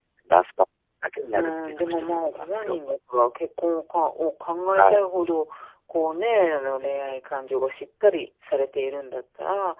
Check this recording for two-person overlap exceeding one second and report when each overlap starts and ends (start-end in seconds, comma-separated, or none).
1.3-2.8